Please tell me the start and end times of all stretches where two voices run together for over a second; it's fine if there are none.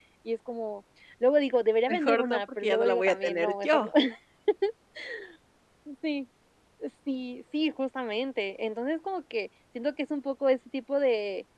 1.9-3.9

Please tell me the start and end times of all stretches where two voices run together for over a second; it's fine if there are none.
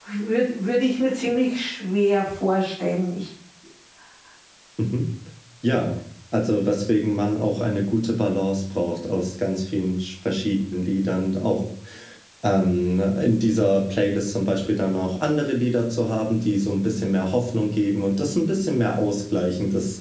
none

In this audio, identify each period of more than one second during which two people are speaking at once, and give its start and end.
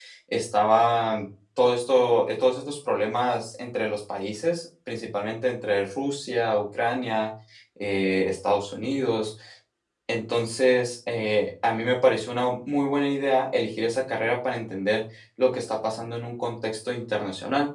none

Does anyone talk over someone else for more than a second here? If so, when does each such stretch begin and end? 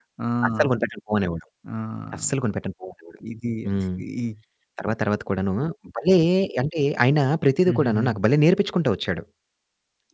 none

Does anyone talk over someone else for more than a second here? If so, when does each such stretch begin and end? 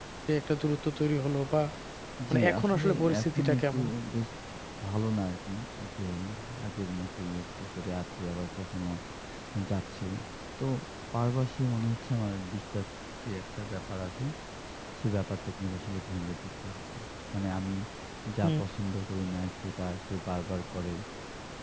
2.3-3.8

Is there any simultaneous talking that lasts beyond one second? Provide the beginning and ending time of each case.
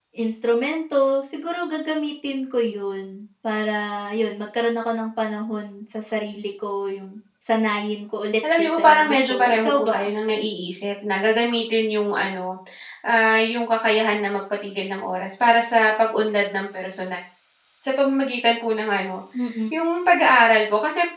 8.6-10.0

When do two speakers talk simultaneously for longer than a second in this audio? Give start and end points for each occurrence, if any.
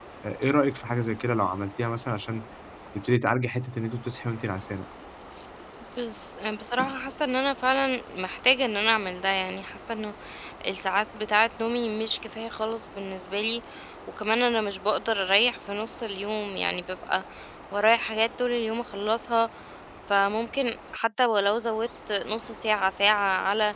none

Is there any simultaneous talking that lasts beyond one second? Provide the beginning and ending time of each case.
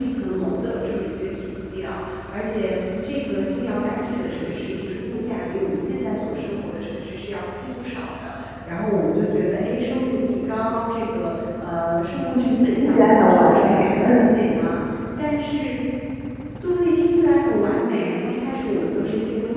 12.3-14.3

